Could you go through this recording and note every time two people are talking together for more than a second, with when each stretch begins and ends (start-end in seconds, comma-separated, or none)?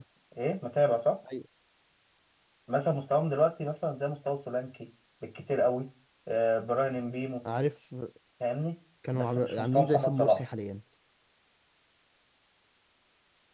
9.1-10.4